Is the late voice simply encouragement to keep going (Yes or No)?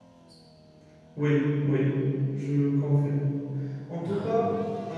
Yes